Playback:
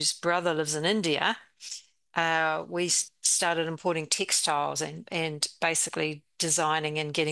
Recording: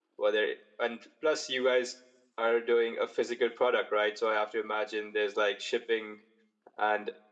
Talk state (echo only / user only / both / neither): user only